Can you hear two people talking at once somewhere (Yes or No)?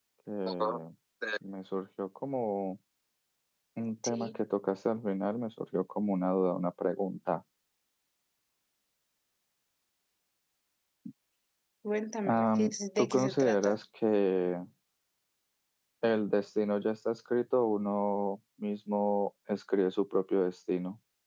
Yes